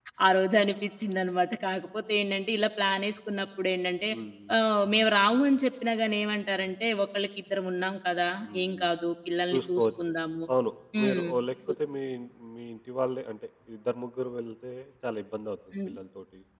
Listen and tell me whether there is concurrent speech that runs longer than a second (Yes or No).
No